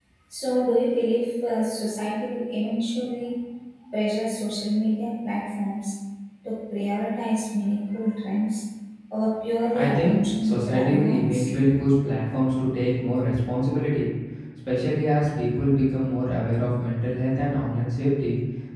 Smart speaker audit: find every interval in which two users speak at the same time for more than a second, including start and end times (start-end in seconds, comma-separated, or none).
9.7-11.5